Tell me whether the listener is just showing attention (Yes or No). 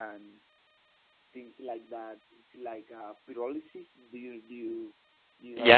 No